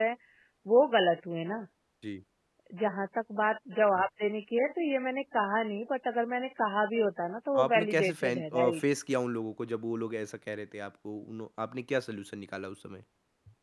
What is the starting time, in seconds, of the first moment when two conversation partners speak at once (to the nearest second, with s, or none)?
8 s